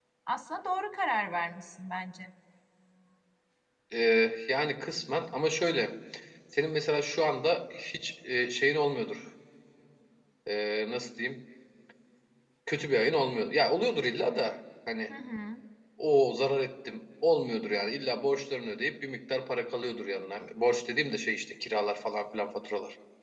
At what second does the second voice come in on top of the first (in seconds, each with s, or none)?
none